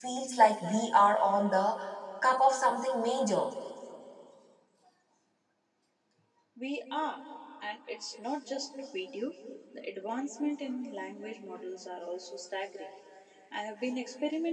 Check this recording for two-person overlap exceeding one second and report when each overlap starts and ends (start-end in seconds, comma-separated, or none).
none